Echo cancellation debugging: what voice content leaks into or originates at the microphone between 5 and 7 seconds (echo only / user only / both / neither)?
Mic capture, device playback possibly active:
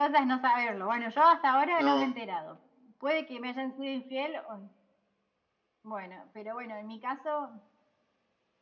echo only